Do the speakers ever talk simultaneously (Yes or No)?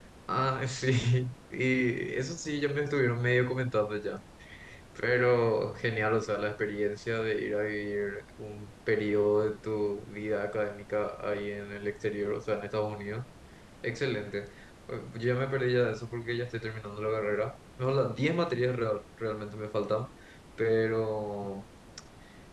No